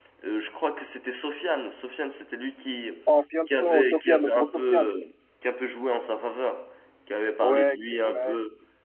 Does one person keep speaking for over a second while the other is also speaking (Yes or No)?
Yes